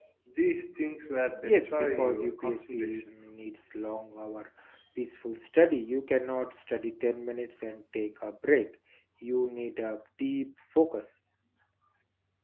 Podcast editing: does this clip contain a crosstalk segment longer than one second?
Yes, from 1.4 s

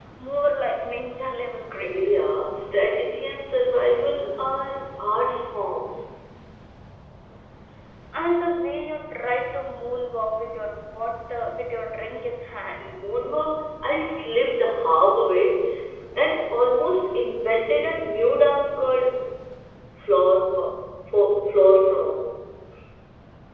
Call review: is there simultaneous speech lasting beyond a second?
No

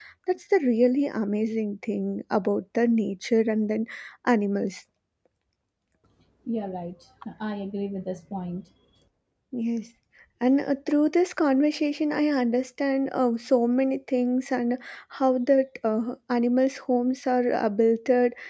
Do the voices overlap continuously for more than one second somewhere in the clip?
No

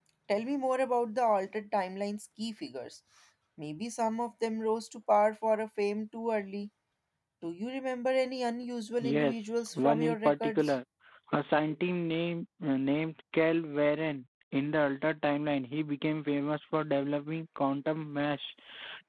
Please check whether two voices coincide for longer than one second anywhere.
Yes, from 9.0 s

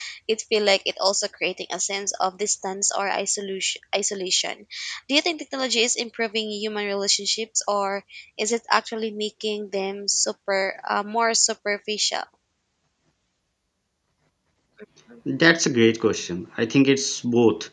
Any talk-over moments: No

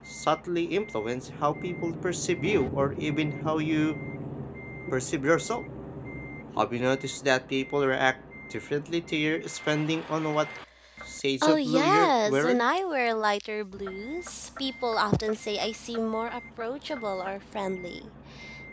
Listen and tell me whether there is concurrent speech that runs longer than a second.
Yes, from 11.4 s

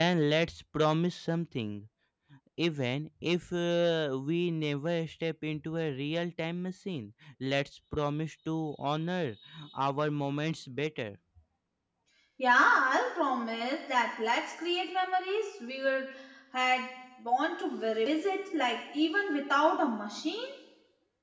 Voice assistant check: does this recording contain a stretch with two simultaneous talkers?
No

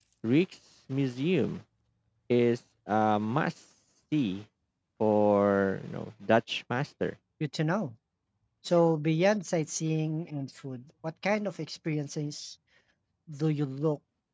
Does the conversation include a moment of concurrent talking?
No

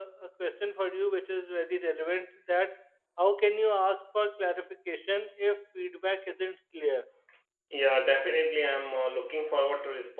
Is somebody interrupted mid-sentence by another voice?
No

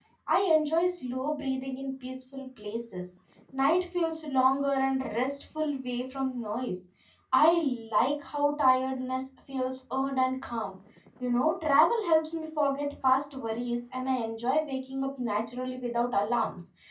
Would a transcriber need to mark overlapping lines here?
No

